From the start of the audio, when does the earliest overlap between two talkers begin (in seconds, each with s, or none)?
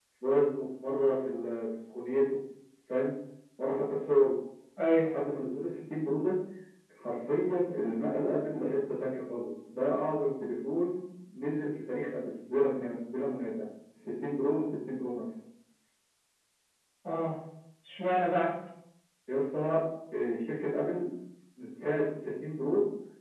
none